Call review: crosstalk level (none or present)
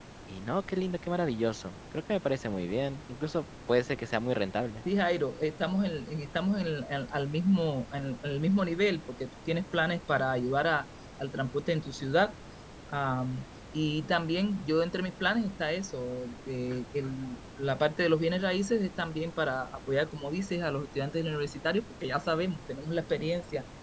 none